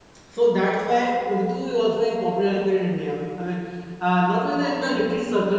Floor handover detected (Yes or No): No